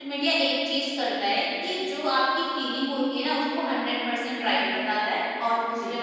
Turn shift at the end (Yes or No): No